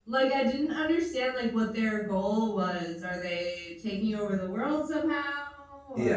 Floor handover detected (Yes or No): Yes